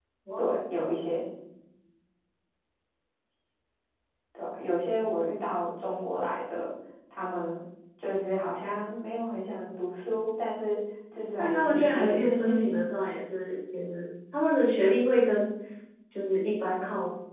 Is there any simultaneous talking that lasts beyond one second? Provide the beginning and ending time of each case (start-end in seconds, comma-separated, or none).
11.4-12.8